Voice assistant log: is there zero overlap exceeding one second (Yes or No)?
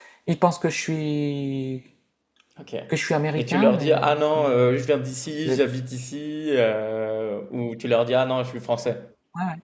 No